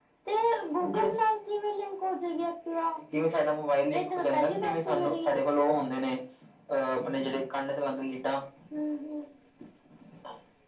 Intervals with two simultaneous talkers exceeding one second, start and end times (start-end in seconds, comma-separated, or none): 3.9-5.4